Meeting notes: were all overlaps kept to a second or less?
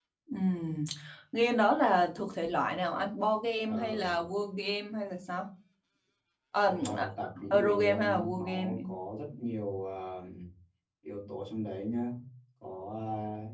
No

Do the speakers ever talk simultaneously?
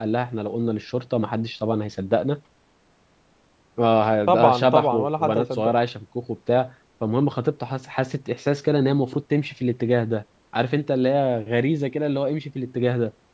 Yes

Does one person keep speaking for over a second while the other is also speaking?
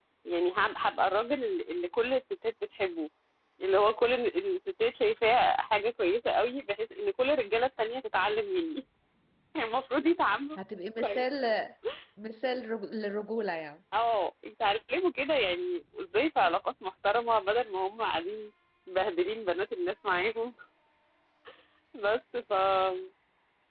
No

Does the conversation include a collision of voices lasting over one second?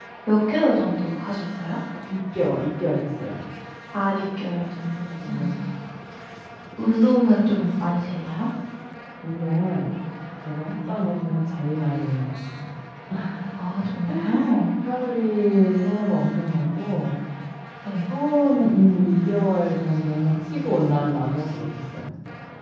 No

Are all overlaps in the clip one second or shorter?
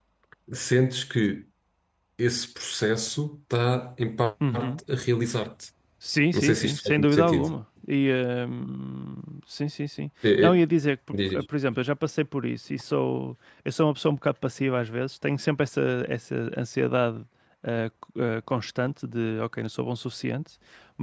No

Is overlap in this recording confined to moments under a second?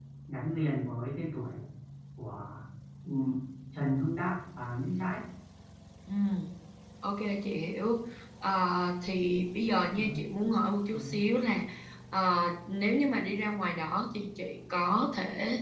Yes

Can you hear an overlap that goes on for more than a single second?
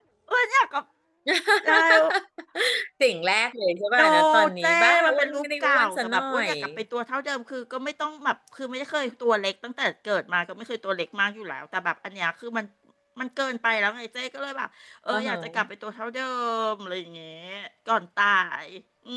Yes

